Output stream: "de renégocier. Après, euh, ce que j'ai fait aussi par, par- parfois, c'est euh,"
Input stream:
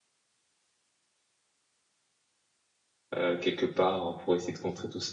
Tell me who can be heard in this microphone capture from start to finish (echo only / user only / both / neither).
user only